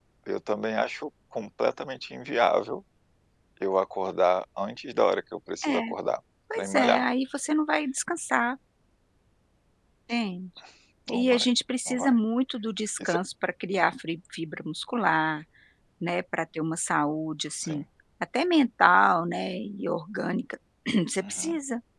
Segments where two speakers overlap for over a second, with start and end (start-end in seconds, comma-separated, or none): none